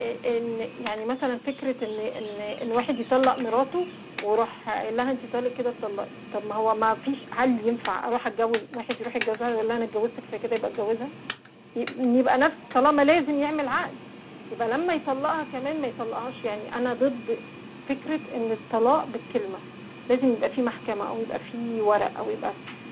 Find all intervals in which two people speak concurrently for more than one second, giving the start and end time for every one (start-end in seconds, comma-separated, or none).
none